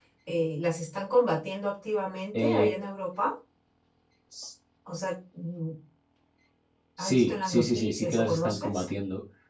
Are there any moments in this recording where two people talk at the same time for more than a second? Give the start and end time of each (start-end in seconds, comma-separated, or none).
7.0-8.8